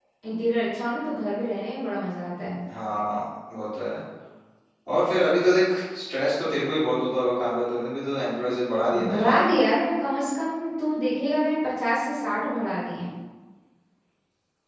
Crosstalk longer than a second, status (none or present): none